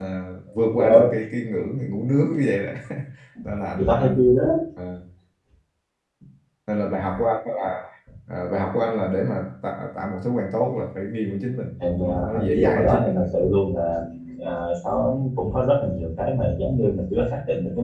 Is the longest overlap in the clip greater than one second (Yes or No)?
Yes